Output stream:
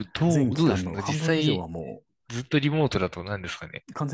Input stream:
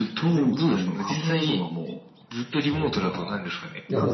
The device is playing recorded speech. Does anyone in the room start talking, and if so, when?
2.6 s

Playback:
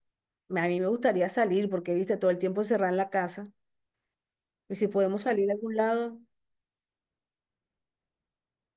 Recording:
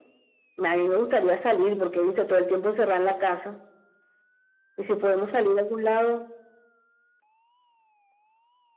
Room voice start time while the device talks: none

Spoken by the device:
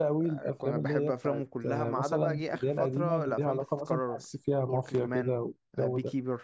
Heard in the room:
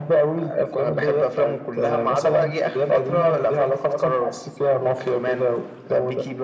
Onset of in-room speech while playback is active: none

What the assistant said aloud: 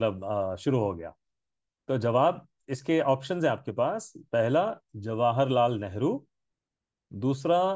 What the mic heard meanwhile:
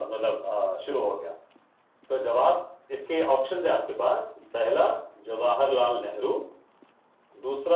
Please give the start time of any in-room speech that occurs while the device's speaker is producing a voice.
none

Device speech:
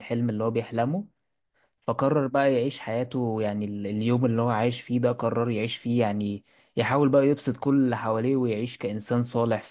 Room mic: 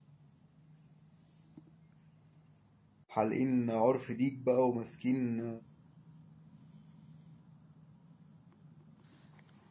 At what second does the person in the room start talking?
3.1 s

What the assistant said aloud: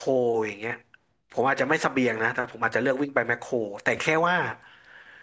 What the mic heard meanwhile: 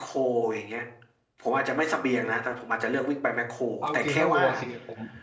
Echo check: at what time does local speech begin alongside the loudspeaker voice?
3.8 s

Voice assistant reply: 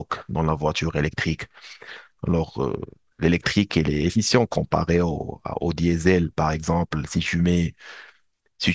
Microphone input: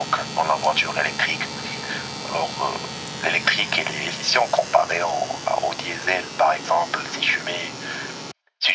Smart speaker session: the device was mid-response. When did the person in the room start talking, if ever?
none

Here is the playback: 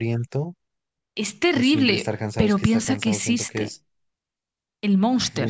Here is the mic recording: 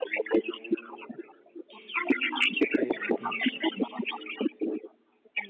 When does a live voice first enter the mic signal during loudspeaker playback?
2.6 s

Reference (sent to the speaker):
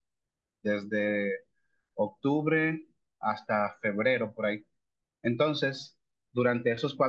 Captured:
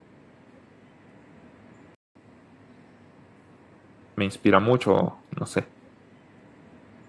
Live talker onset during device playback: 4.2 s

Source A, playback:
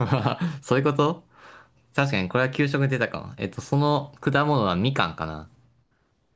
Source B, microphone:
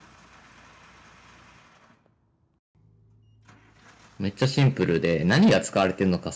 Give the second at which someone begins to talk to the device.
4.2 s

